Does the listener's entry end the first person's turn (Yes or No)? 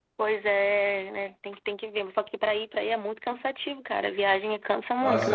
Yes